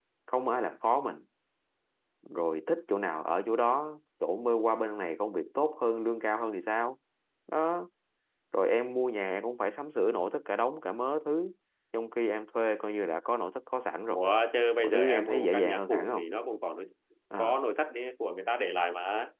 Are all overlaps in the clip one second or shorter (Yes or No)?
No